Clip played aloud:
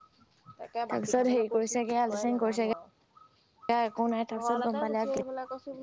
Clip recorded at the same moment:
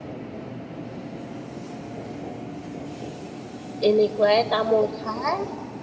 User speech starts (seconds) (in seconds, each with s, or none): 3.9 s